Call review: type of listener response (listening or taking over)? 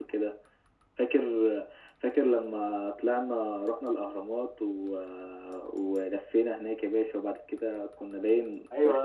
taking over